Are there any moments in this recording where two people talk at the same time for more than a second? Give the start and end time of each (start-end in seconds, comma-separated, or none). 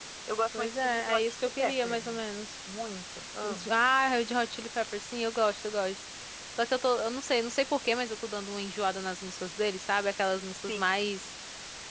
0.5-2.2